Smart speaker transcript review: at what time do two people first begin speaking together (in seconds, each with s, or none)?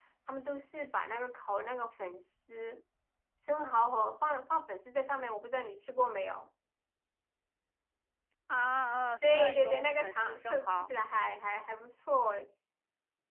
9.2 s